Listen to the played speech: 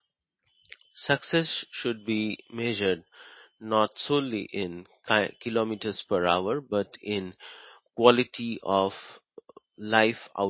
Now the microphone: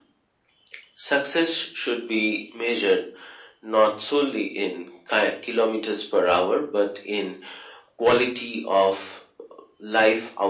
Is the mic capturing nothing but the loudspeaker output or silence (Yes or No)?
Yes